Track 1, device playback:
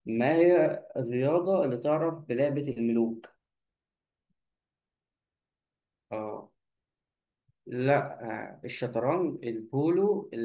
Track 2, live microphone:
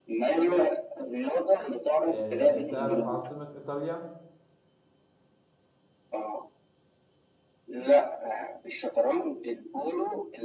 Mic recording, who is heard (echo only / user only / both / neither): both